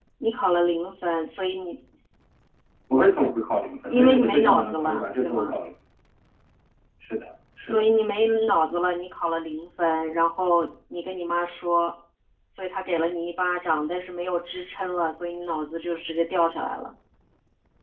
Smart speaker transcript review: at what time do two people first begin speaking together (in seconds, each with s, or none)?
3.9 s